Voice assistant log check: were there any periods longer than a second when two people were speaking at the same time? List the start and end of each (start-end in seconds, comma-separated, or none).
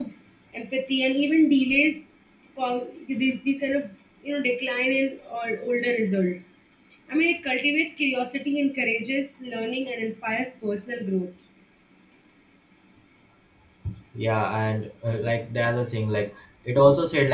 none